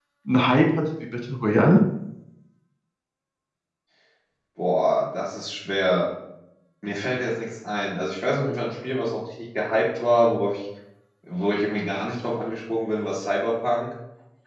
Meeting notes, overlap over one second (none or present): none